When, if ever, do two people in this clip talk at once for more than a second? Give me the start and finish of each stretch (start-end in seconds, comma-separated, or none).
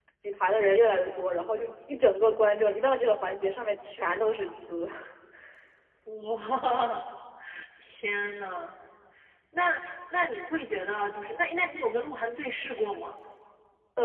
none